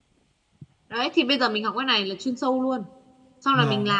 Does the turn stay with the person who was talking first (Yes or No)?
No